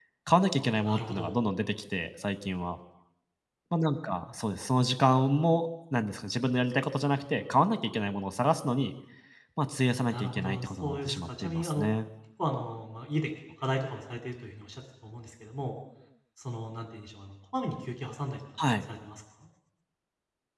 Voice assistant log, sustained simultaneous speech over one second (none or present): present